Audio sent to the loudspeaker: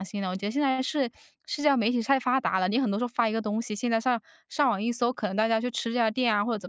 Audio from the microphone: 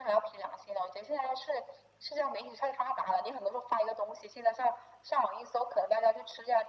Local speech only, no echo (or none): none